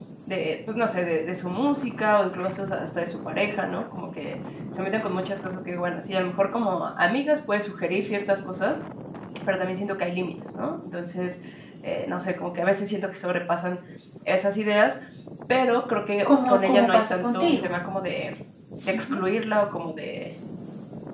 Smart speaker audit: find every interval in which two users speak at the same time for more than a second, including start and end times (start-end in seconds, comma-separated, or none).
16.4-17.7